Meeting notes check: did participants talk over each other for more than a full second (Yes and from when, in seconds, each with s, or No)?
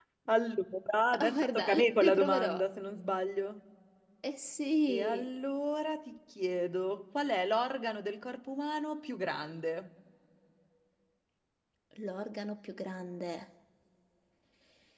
Yes, from 1.2 s